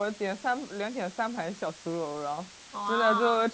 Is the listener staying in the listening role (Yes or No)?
Yes